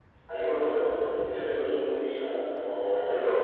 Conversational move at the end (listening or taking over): listening